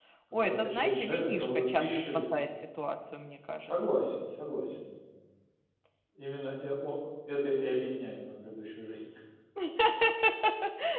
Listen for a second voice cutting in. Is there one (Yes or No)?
Yes